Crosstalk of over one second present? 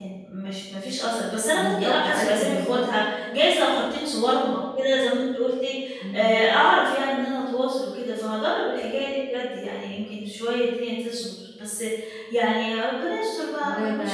Yes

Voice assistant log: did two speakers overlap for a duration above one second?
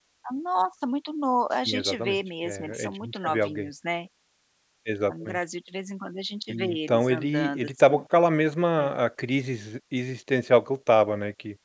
Yes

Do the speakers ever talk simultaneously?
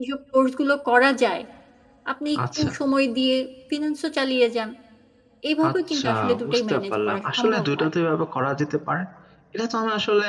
Yes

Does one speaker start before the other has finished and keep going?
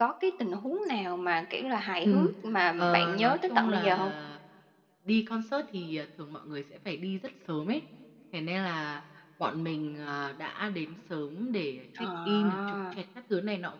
Yes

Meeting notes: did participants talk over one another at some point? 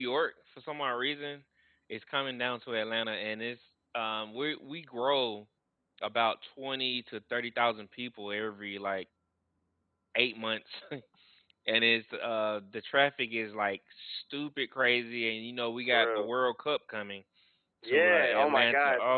Yes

